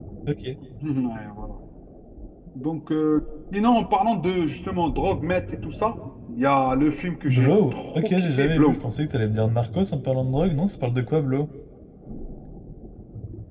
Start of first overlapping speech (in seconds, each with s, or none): 7.3 s